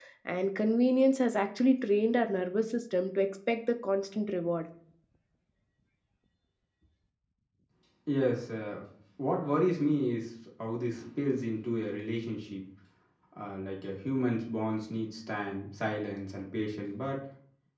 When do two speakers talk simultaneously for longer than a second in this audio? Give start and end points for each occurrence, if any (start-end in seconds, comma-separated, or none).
none